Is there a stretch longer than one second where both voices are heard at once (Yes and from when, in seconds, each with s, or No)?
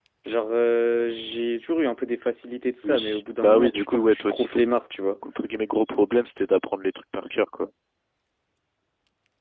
Yes, from 2.8 s